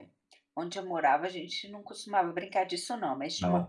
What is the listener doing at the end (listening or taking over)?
listening